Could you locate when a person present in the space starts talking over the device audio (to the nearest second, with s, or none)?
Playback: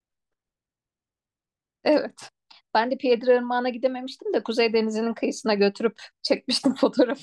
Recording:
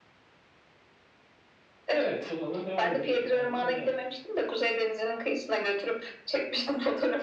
2 s